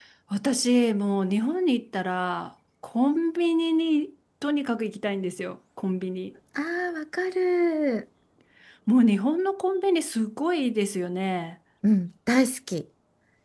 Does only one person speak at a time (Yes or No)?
Yes